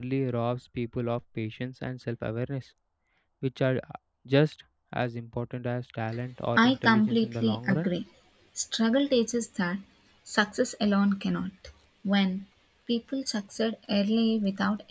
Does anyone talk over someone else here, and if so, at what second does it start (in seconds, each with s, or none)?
6.6 s